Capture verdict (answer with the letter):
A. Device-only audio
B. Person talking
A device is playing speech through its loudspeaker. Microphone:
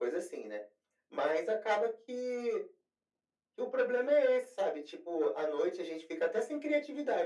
A